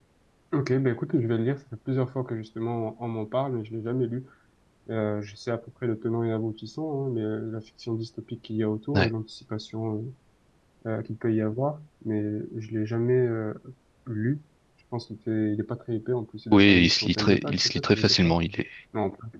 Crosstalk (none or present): present